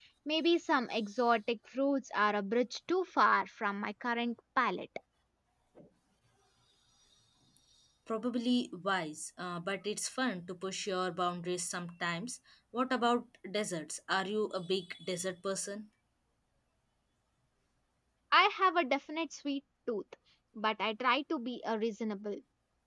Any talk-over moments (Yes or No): No